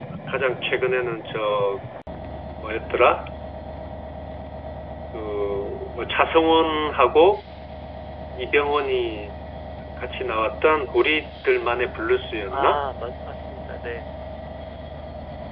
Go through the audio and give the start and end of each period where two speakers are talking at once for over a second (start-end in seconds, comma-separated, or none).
none